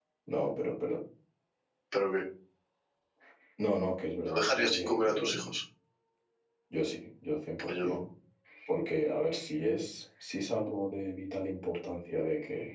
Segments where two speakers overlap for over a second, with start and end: 4.3-5.5

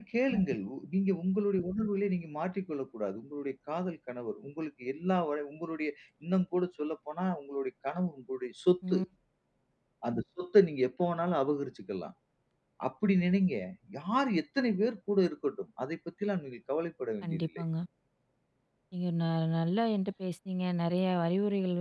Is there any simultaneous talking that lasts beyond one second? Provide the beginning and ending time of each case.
none

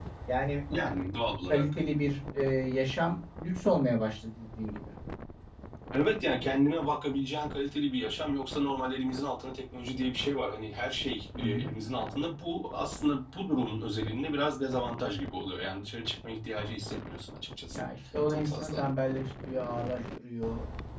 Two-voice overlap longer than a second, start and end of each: none

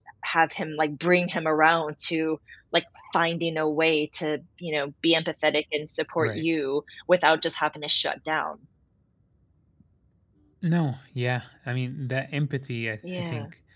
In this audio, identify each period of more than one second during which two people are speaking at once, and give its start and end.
none

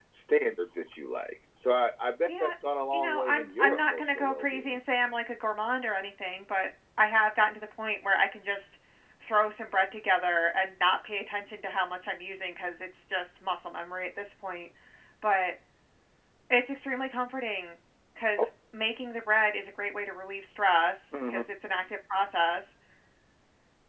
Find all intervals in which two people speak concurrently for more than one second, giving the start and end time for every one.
2.9-4.8

